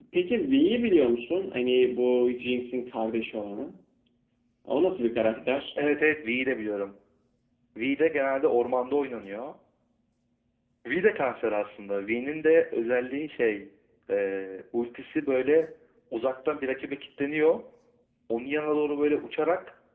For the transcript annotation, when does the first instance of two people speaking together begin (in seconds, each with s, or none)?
none